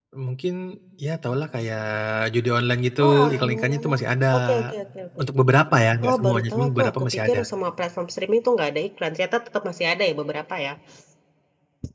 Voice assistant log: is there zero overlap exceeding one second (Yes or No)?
No